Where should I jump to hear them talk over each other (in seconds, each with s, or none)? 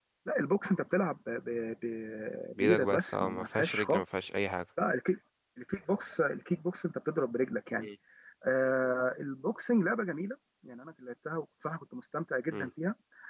2.6 s